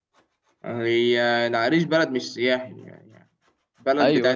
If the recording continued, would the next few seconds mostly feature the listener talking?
No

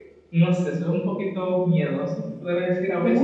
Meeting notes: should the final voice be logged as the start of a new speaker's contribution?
No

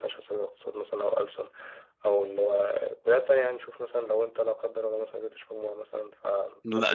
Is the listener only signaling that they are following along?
No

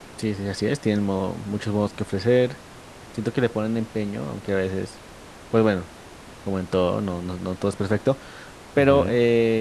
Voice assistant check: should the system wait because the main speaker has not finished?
Yes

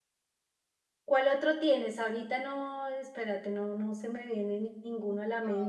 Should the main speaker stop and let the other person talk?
Yes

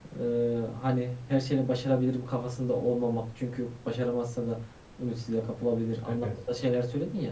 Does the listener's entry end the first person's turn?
No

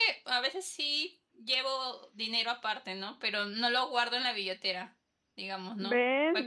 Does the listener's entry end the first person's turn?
Yes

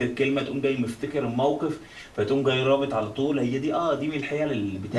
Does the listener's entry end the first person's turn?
No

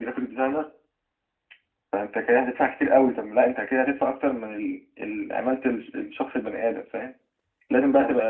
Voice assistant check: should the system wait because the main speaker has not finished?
Yes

